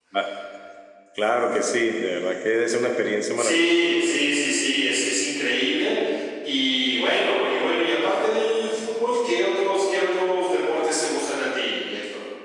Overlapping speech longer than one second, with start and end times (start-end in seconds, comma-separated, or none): none